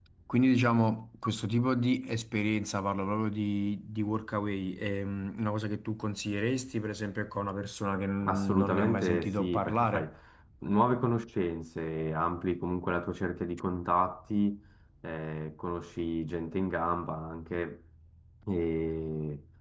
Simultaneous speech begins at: 8.2 s

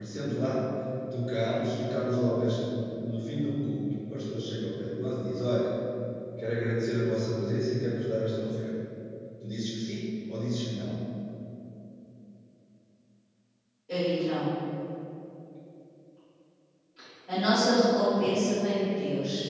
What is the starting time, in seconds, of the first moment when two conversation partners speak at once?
none

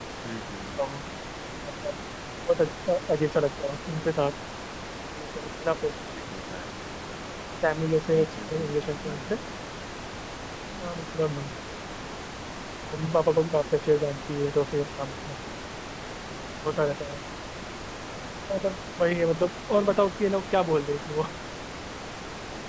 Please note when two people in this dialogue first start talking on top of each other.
8.1 s

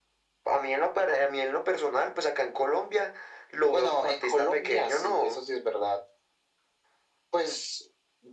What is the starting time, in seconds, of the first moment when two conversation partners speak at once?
3.7 s

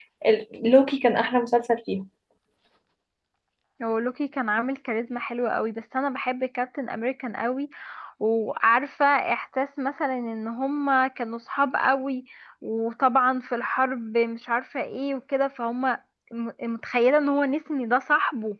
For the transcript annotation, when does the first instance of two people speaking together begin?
none

